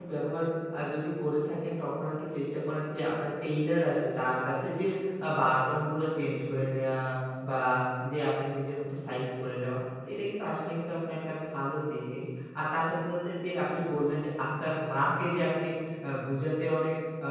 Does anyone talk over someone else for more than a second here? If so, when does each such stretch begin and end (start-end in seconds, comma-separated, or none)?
none